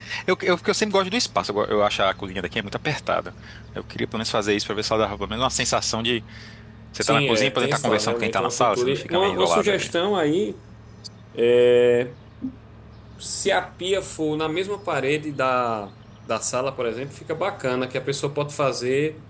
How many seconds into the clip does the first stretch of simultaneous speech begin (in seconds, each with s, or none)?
7.0 s